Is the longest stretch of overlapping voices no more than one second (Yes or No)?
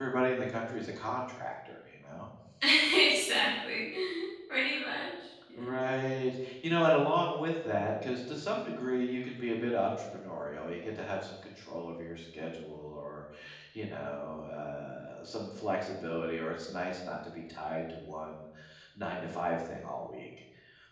Yes